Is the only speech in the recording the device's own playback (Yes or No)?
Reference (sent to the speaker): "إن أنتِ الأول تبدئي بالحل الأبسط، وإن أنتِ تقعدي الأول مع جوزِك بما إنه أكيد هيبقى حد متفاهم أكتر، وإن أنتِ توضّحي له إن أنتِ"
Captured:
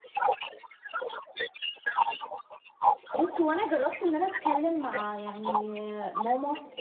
No